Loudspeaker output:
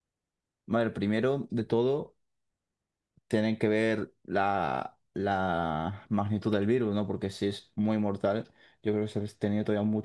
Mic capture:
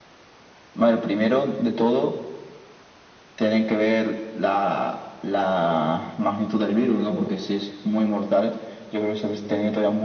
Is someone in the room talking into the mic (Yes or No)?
No